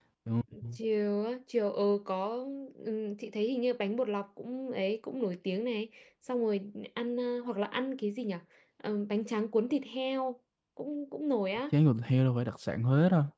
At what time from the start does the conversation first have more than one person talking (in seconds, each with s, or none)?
none